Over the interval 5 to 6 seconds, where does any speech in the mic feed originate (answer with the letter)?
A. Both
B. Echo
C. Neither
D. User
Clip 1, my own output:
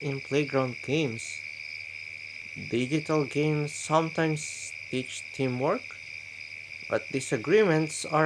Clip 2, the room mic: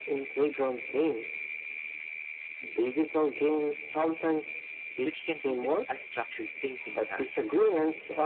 A